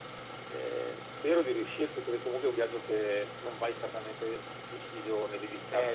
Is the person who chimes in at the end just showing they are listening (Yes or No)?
No